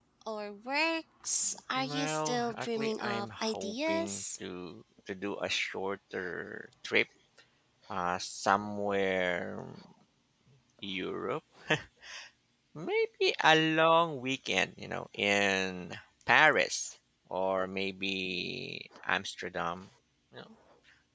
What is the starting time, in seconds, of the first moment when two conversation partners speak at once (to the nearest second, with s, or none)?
2 s